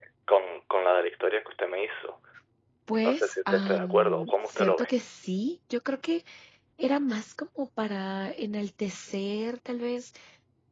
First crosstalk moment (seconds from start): 3.0 s

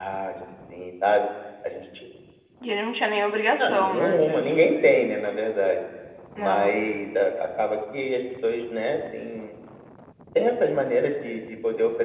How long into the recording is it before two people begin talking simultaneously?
3.6 s

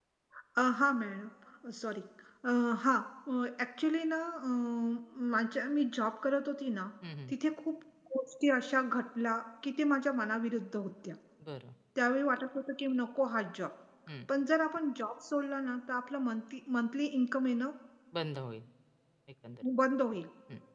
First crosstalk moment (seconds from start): none

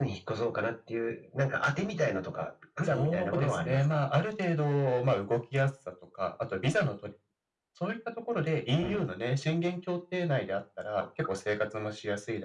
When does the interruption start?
2.8 s

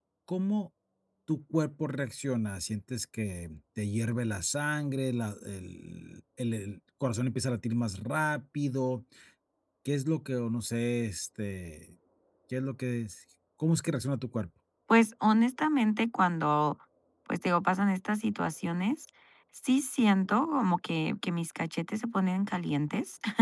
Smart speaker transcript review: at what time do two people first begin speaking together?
none

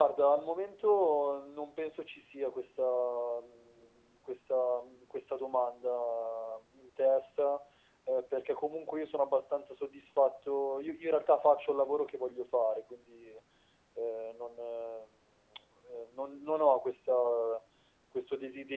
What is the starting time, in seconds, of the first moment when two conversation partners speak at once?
none

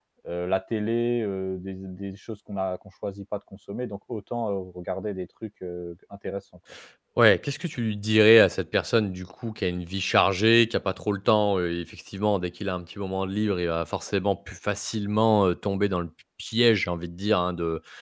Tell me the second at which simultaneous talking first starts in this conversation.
none

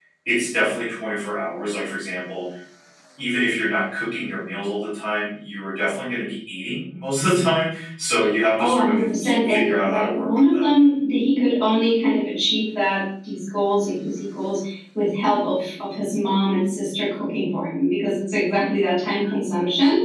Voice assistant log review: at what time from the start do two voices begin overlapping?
8.6 s

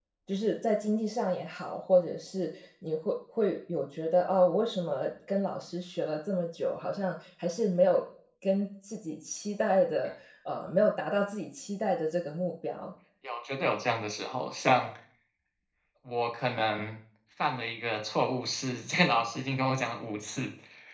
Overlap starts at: none

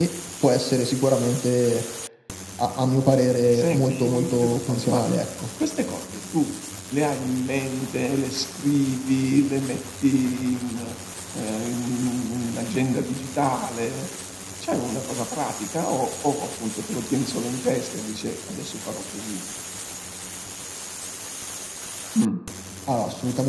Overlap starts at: 3.5 s

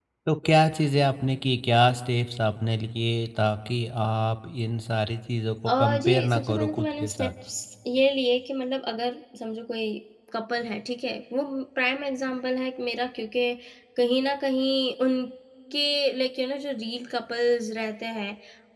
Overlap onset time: 5.7 s

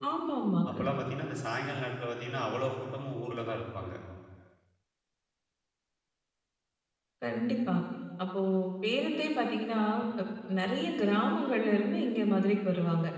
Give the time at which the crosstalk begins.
none

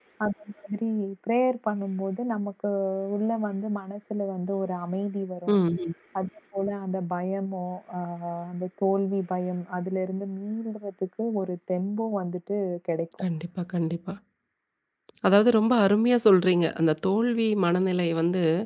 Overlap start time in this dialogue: none

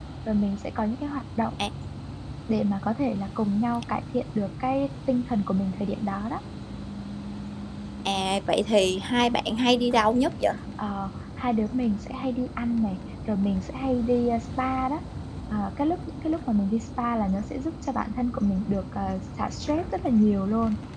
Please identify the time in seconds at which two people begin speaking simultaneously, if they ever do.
none

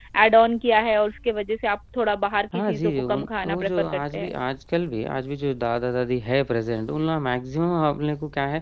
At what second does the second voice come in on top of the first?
2.5 s

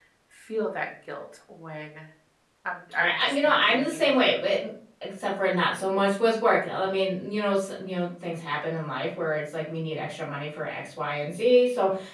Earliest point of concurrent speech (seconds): 3.0 s

